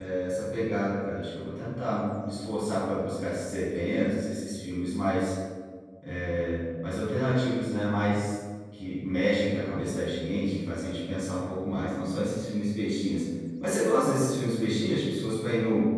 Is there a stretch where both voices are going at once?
No

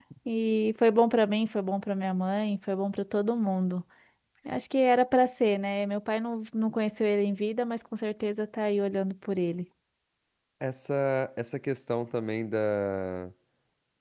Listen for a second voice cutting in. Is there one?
No

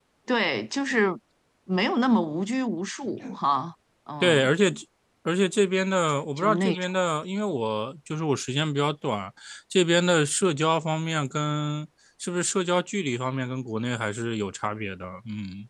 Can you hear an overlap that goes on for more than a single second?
No

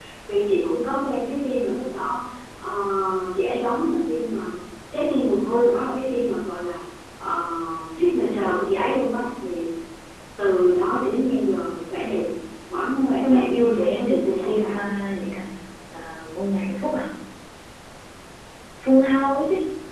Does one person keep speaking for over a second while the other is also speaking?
Yes, from 13.2 s

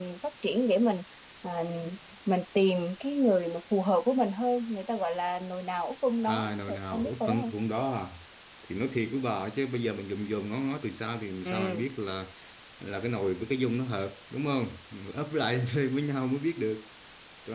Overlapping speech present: Yes, from 6.2 s

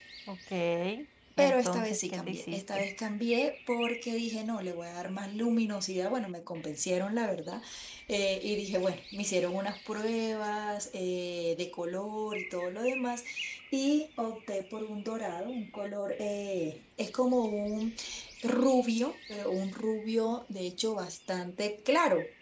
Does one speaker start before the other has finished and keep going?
Yes, from 1.4 s

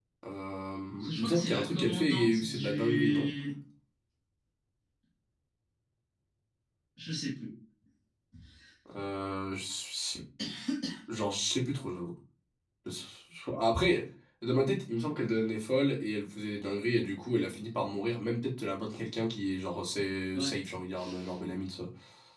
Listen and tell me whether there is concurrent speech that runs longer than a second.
Yes, from 1.0 s

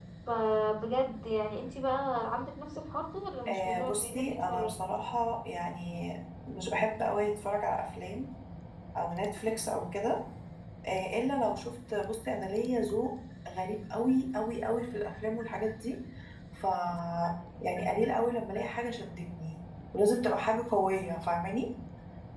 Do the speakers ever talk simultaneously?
Yes, from 3.5 s

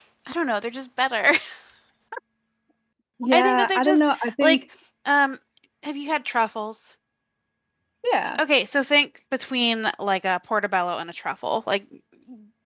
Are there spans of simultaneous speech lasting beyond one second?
Yes, from 3.3 s

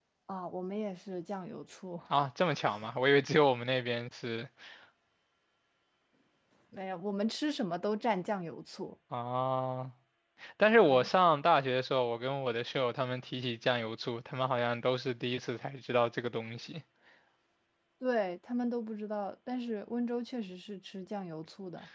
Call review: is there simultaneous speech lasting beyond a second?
No

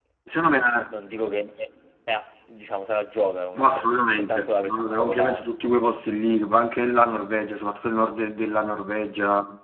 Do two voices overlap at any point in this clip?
Yes, from 3.5 s

